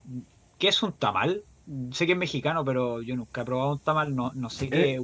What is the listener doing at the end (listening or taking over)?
taking over